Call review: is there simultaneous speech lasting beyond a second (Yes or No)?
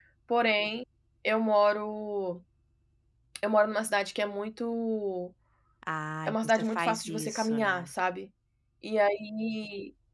Yes